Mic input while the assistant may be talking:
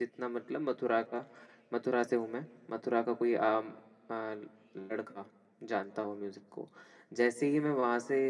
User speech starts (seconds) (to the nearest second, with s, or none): none